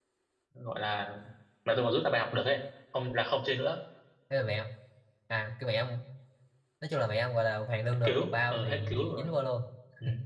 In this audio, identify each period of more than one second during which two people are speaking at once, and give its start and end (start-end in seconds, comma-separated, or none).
8.0-9.3